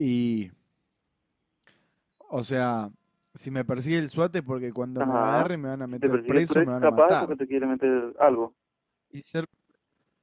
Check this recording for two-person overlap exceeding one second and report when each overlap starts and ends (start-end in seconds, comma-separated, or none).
5.9-7.3